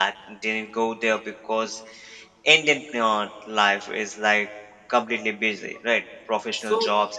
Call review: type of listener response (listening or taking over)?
listening